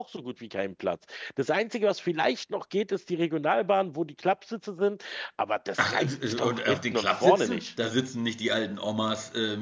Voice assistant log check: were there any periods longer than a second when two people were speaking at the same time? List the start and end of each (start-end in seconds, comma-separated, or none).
5.8-7.7